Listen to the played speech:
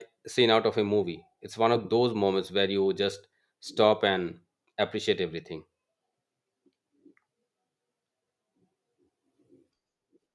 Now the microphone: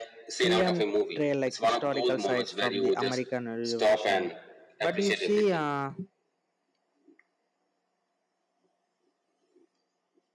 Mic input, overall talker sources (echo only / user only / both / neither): both